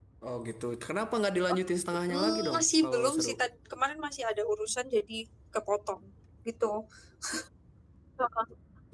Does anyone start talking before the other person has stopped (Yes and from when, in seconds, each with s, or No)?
Yes, from 2.1 s